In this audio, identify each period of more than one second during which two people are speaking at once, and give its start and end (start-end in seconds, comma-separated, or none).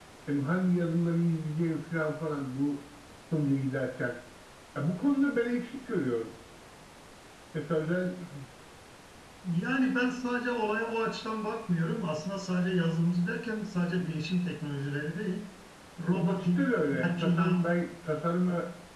16.1-17.7